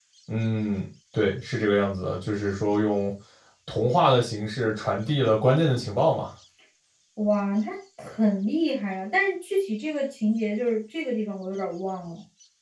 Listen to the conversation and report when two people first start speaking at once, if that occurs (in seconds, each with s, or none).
none